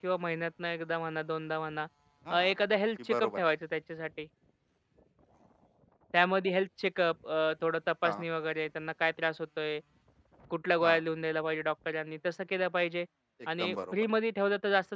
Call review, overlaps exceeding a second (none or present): none